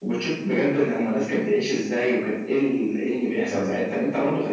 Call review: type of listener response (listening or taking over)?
listening